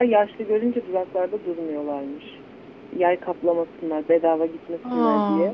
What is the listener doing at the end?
listening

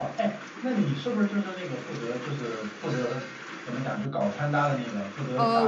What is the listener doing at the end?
taking over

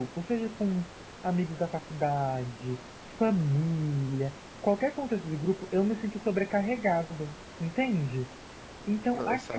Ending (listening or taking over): listening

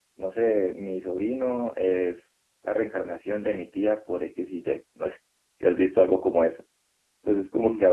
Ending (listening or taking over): listening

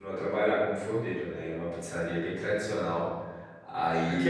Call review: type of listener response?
taking over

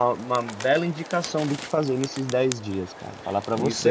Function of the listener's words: taking over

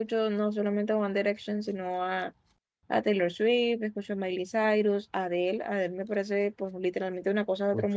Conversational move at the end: taking over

